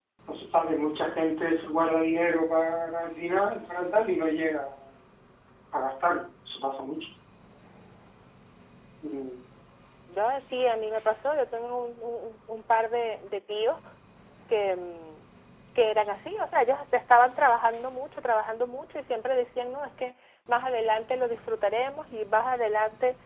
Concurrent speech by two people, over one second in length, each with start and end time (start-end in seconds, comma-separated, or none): none